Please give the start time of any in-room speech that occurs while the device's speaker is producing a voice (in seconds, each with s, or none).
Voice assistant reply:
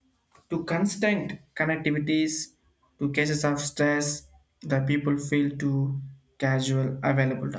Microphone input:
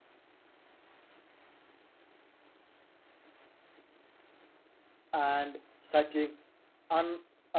5.1 s